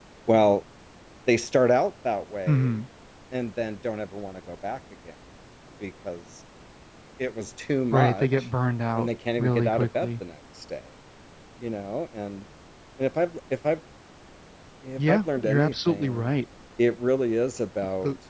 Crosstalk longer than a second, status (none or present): present